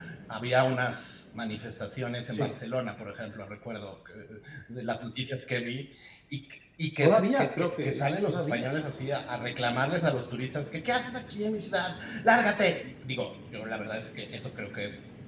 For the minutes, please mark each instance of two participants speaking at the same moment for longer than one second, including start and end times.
7.0-8.7

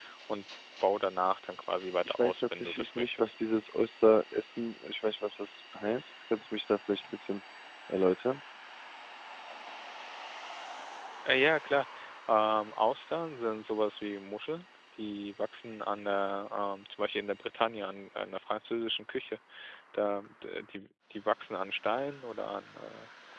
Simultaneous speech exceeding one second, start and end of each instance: 2.1-3.4

